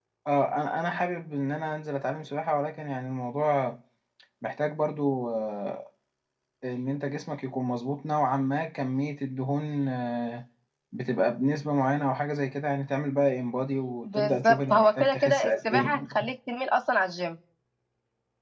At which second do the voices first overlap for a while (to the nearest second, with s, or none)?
14 s